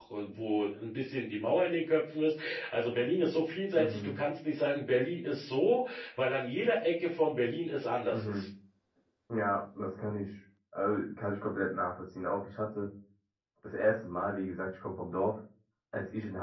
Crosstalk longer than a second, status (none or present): none